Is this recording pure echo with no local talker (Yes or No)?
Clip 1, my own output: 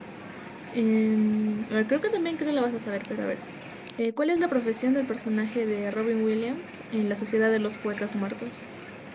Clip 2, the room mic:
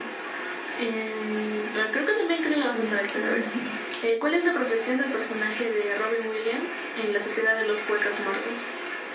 No